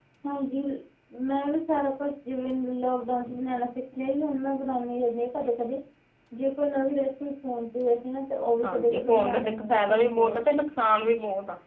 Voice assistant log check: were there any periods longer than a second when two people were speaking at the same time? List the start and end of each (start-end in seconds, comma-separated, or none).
8.6-10.4